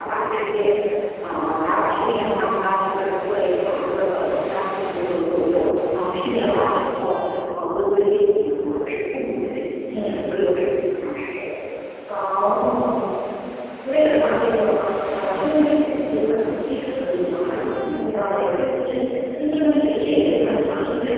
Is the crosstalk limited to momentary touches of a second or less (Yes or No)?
Yes